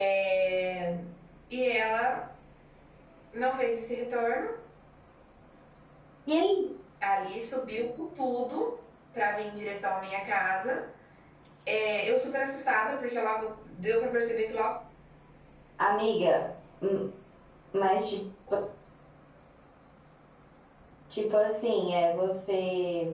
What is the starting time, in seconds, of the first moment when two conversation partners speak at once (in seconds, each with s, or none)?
none